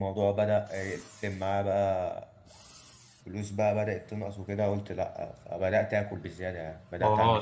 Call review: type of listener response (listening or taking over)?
taking over